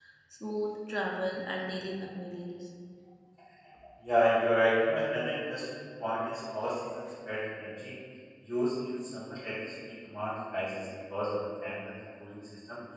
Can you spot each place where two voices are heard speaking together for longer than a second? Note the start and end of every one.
none

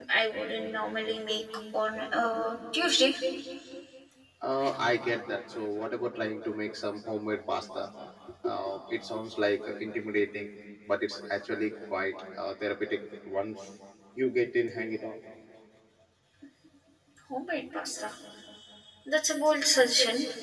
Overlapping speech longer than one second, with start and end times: none

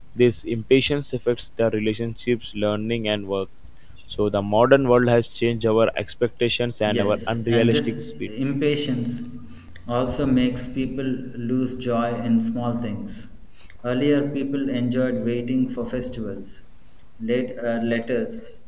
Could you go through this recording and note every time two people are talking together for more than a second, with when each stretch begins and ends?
6.9-8.3

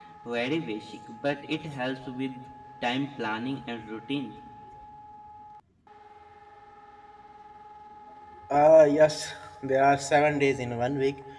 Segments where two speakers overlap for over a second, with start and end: none

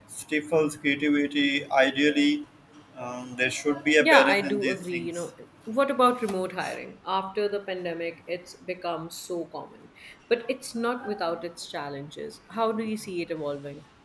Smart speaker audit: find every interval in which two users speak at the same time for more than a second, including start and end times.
4.0-5.2

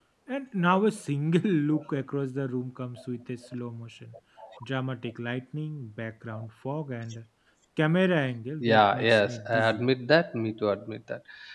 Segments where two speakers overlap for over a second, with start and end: 8.6-9.8

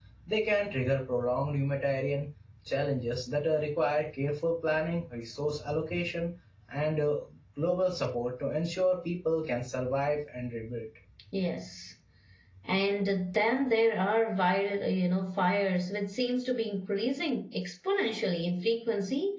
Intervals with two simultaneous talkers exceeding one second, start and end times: none

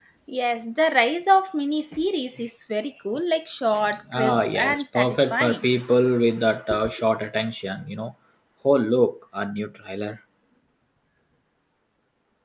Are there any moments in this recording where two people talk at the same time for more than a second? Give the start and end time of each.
4.1-5.6

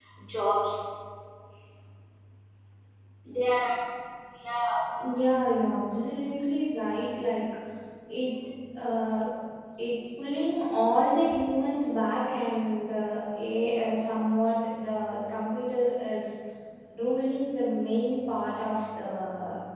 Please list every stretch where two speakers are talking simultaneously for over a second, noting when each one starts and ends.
none

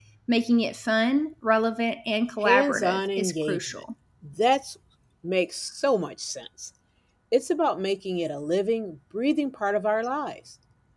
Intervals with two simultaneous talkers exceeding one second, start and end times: 2.4-3.8

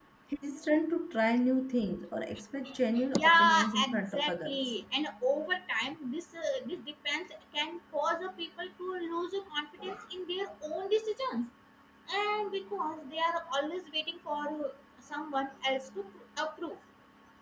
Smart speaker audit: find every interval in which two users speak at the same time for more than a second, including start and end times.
3.2-4.6

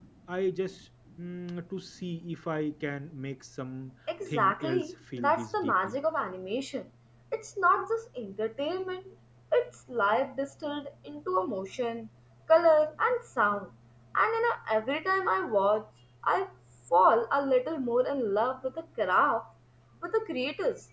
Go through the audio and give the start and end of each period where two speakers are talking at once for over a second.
4.3-6.0

